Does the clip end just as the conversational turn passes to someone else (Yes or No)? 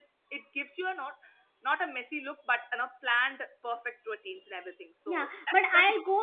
Yes